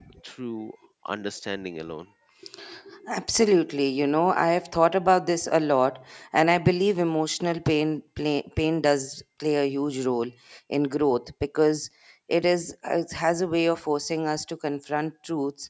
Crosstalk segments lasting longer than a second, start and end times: none

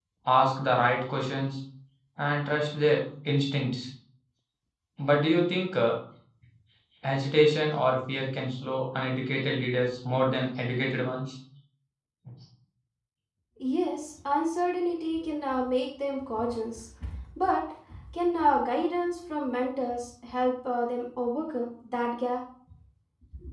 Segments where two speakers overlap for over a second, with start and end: none

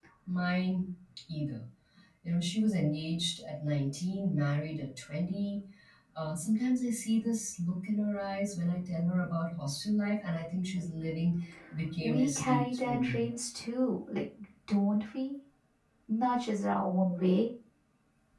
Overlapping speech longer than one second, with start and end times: 12.0-13.2

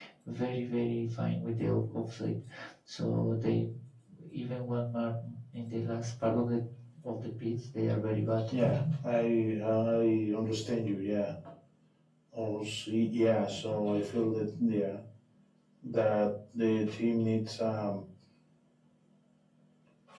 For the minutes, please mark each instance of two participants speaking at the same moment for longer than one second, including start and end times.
none

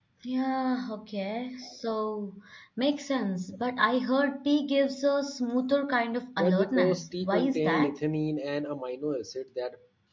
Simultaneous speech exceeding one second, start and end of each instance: 6.4-7.9

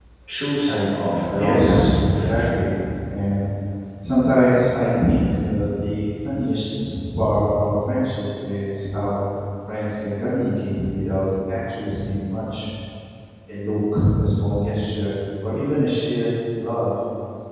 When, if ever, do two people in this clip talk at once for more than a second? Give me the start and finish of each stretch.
1.3-2.5

